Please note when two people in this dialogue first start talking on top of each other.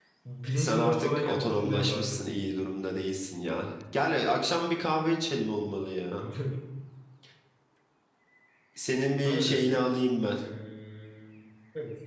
0.5 s

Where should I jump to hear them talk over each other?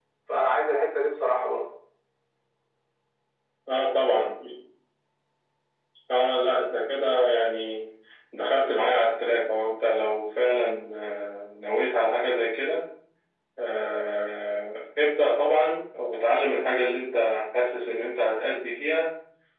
none

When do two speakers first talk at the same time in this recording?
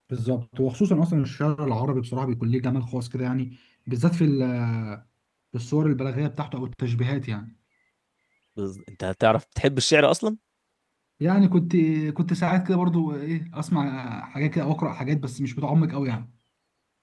none

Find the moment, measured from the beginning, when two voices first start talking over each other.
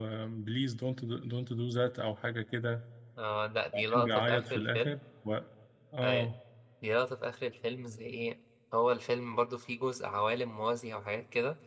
3.7 s

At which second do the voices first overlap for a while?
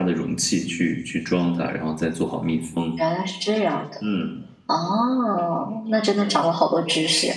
none

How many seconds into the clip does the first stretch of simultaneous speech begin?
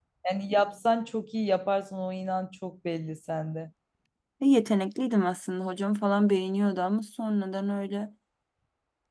none

